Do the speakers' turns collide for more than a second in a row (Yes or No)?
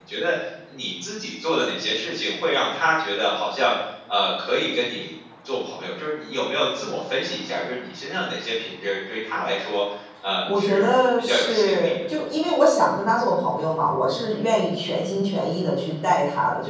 Yes